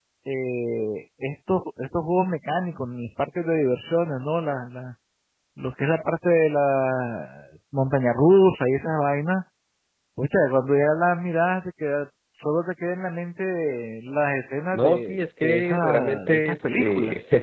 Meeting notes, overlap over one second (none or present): present